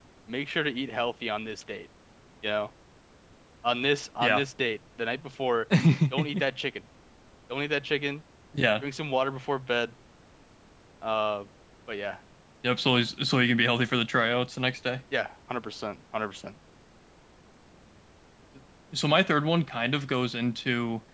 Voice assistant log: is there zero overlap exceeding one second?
Yes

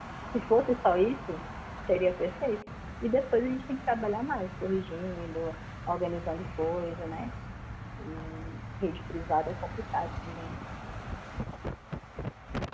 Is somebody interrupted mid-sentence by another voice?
No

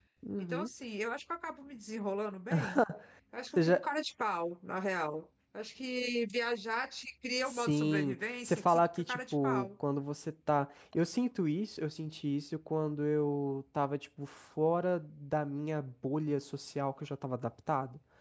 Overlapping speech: Yes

